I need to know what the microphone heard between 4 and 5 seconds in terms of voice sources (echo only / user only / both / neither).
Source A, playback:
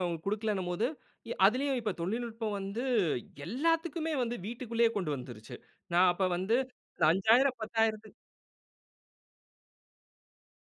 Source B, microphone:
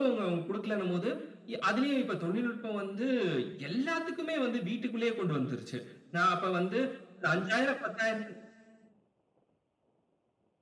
echo only